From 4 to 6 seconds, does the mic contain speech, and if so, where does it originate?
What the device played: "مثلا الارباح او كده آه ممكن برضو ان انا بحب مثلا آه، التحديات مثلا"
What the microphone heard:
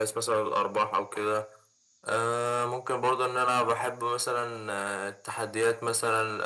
echo only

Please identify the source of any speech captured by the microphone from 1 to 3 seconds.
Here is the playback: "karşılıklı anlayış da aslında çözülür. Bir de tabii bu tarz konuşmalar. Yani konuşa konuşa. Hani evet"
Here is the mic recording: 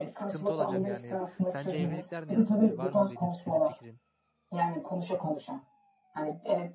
both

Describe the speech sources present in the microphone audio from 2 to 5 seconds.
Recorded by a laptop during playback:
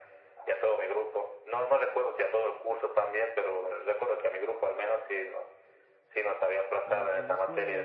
echo only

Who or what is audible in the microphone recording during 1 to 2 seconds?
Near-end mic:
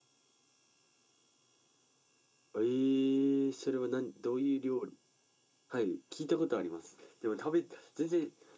neither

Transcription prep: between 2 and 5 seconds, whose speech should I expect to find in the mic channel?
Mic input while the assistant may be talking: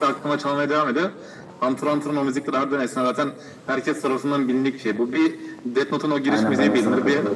echo only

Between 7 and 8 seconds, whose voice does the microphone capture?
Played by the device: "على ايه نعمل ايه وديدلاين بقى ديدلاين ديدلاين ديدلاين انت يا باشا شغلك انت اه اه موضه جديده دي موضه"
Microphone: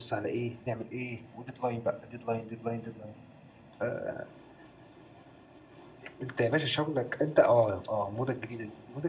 echo only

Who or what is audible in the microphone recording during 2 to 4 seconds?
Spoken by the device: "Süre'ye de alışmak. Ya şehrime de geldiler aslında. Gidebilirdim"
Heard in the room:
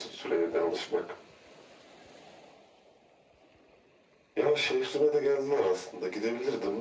neither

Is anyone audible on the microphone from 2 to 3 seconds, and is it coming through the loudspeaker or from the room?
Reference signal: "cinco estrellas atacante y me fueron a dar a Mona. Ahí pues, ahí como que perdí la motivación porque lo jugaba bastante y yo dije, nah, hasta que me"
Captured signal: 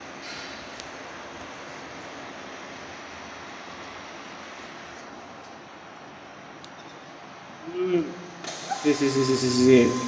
neither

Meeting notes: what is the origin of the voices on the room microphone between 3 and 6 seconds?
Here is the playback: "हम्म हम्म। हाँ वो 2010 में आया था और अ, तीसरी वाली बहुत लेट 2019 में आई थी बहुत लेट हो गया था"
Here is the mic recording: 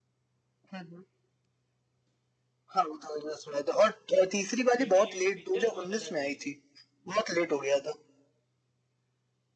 both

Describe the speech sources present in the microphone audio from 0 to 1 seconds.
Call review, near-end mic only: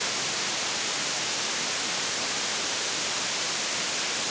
neither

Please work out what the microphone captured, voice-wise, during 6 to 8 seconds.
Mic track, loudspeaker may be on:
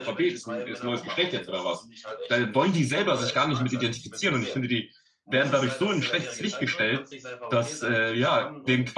both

